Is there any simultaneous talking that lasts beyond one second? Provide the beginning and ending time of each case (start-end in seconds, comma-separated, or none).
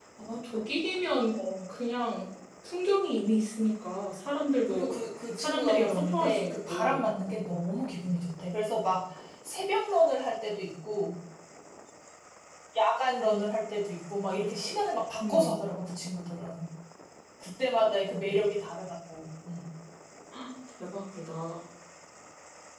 5.3-7.0